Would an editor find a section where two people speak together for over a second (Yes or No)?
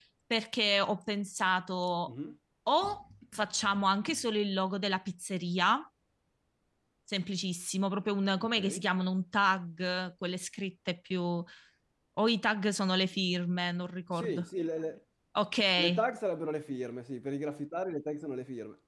No